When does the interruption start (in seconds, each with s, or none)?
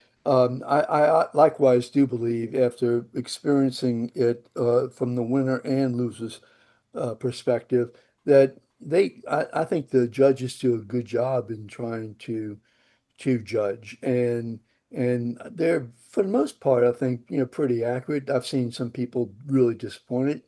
none